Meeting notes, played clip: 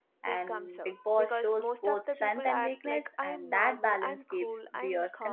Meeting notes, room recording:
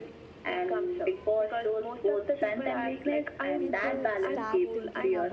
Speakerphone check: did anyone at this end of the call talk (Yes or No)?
Yes